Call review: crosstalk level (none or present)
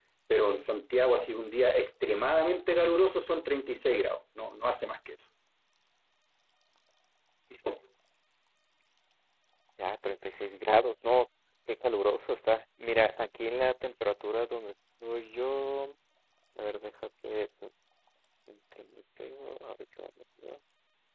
none